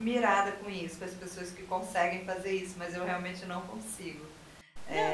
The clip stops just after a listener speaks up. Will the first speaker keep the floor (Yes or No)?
No